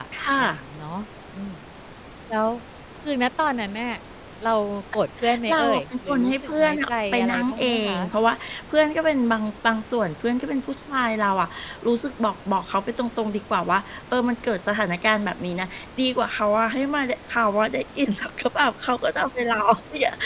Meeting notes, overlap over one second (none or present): present